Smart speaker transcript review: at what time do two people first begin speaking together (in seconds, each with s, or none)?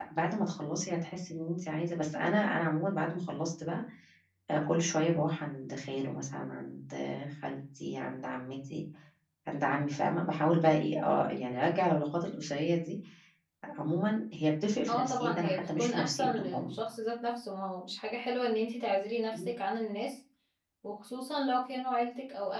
14.9 s